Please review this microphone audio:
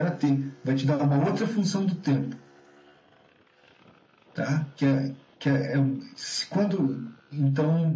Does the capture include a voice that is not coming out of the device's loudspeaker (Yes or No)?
No